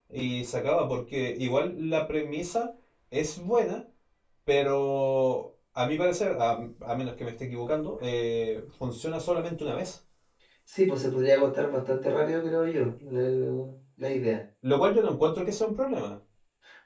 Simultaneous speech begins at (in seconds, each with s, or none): none